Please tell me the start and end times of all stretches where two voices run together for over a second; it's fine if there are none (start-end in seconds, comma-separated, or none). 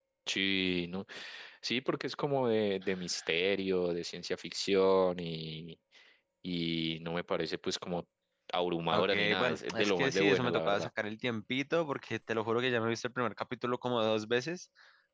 8.9-10.9